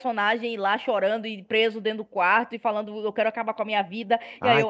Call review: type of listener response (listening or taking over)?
listening